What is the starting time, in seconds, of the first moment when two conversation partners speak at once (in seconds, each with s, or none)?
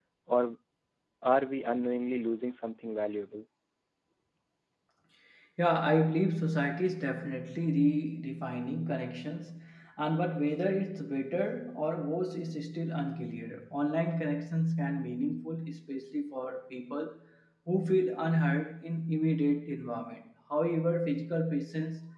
none